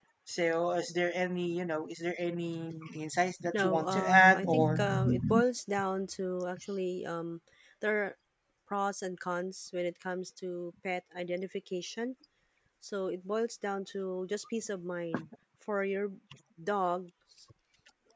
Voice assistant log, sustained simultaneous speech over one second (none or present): present